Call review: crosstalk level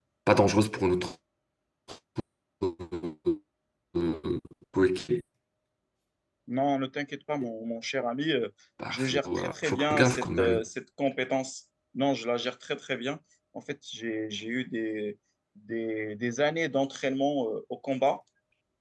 present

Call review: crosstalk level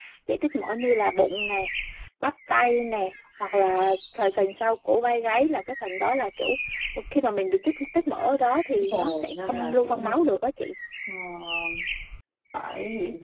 present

